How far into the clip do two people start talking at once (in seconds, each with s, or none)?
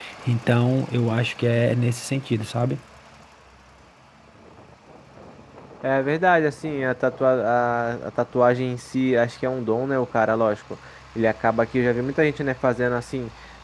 none